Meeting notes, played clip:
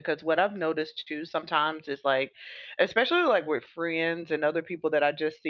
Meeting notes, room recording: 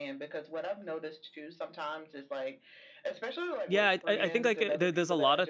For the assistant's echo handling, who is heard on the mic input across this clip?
both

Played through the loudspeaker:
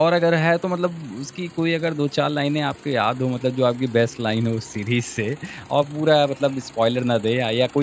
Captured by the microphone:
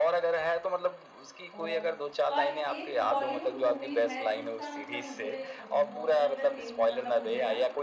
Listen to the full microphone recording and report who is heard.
both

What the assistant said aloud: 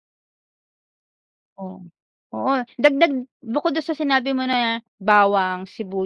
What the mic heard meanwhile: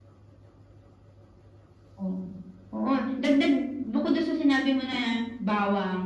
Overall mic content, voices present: echo only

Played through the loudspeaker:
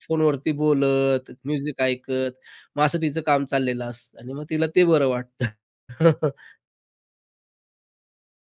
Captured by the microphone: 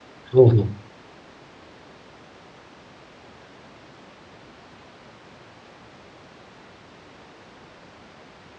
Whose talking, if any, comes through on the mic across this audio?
user only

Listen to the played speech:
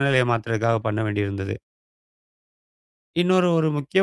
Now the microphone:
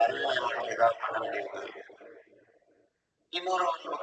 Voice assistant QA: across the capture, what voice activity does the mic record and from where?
echo only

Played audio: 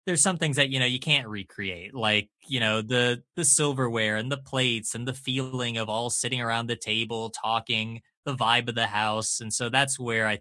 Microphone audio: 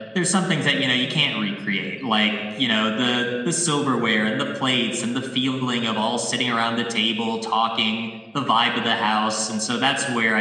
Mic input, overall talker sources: echo only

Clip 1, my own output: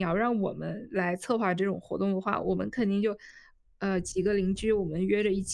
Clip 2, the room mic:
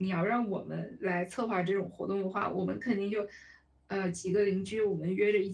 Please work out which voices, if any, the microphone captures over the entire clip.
echo only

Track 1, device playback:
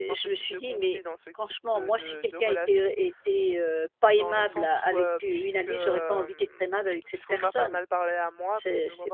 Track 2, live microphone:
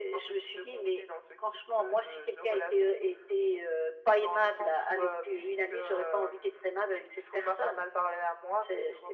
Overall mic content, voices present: echo only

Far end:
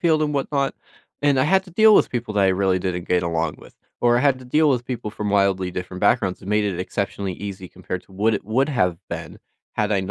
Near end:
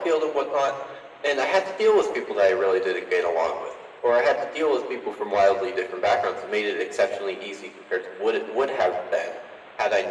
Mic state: echo only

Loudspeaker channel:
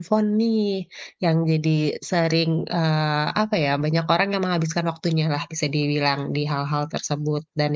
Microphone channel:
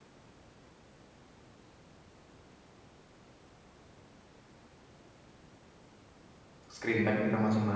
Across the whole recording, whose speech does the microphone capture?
user only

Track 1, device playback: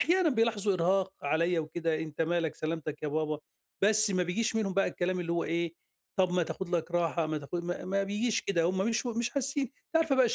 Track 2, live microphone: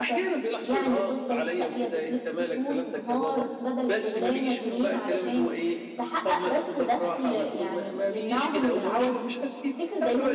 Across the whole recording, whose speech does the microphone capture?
both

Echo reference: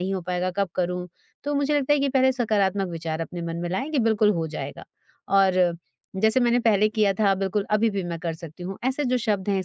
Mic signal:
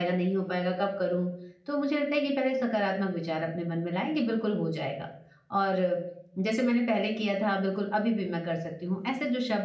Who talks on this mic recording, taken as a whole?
echo only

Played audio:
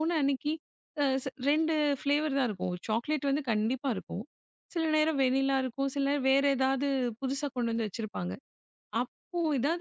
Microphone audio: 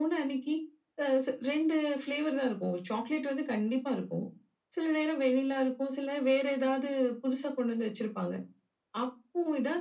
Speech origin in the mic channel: echo only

